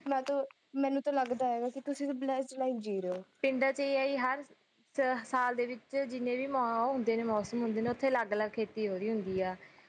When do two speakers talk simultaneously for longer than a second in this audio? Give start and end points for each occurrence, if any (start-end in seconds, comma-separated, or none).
none